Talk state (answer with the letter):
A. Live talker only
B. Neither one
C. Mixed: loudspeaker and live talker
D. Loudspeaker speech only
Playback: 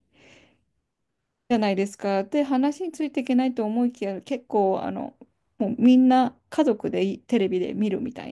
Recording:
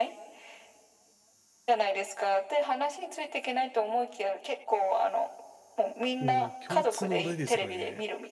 C